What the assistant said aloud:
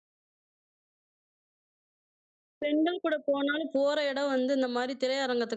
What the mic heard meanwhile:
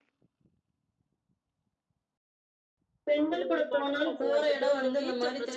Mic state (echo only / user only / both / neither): both